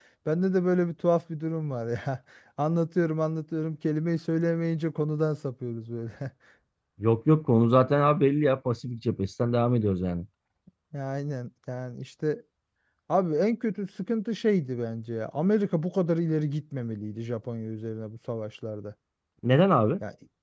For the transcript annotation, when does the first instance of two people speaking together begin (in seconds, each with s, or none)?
none